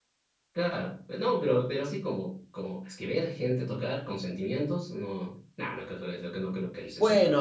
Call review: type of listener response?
taking over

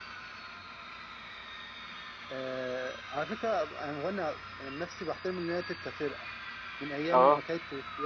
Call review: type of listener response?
listening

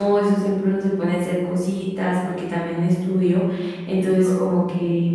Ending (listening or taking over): listening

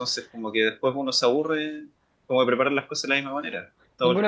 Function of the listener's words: taking over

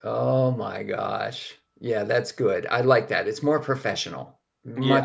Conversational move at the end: taking over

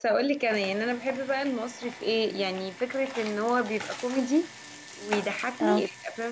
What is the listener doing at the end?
listening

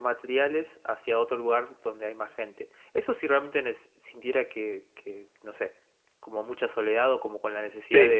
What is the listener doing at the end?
listening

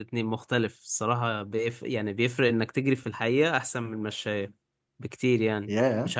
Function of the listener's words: listening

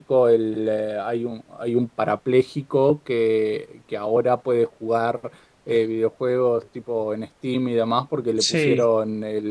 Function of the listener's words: listening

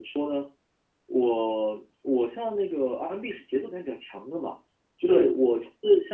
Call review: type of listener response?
listening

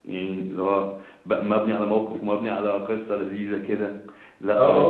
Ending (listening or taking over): taking over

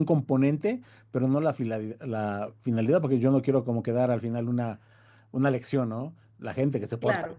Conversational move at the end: listening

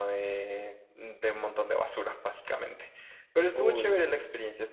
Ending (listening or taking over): listening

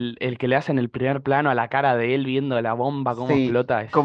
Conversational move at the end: taking over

